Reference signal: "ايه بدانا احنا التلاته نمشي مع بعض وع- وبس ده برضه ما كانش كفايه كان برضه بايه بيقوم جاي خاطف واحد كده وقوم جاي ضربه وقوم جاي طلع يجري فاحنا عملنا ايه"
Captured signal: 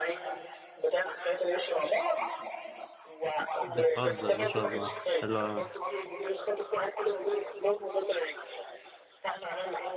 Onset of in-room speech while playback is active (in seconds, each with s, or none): 3.6 s